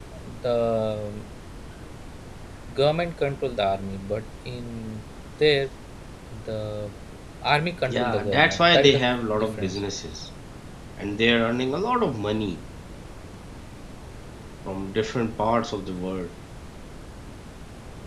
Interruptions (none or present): present